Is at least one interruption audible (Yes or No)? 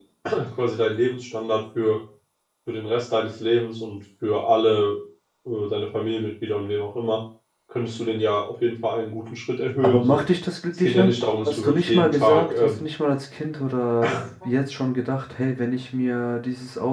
Yes